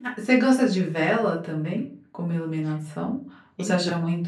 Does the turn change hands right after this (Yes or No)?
No